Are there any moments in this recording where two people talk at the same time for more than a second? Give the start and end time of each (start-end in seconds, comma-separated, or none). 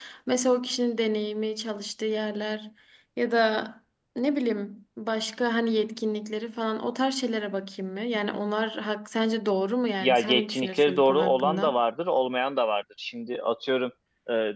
10.0-11.8